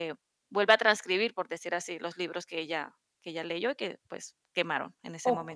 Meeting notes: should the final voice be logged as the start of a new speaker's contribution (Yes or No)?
Yes